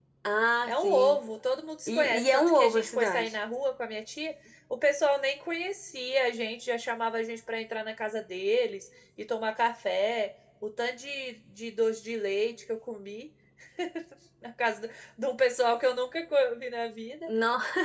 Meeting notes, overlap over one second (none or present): present